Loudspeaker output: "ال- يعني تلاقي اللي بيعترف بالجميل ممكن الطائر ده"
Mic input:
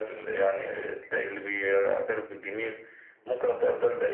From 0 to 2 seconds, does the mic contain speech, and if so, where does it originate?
echo only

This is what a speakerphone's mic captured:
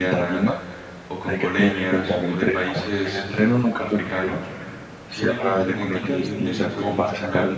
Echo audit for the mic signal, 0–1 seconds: both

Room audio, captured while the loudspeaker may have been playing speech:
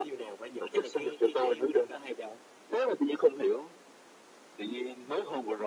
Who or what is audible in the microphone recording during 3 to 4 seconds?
echo only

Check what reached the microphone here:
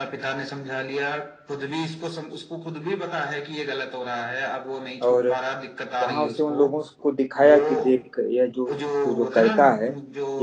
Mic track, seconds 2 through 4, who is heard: echo only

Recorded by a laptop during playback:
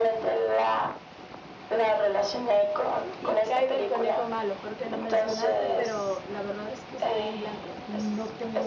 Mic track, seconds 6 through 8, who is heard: both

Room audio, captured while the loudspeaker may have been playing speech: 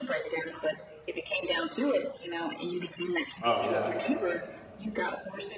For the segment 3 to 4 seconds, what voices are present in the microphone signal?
both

